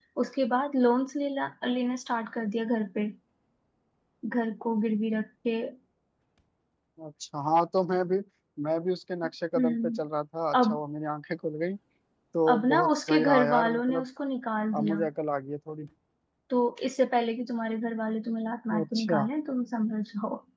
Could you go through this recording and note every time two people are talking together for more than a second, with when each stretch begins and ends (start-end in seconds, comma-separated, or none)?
12.5-14.0